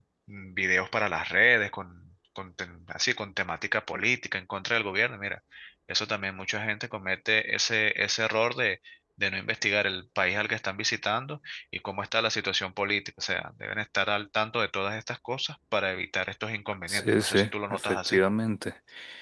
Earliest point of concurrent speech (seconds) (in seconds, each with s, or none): 16.9 s